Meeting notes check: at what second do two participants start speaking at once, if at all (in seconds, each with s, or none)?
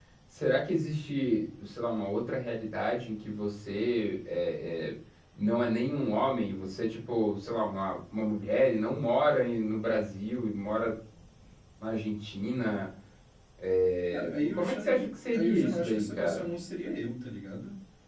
14.1 s